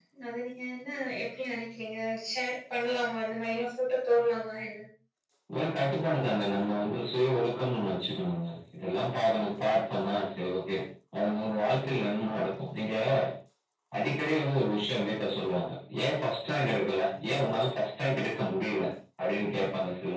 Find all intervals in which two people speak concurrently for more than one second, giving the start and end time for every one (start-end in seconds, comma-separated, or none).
none